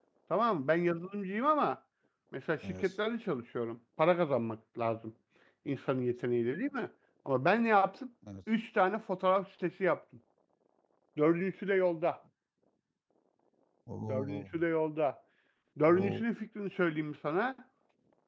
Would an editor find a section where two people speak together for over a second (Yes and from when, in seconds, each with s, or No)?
No